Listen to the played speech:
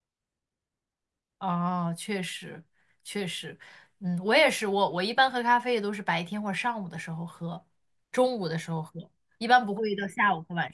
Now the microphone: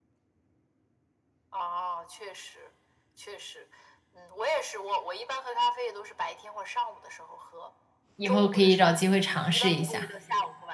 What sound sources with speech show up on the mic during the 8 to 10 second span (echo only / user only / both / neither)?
both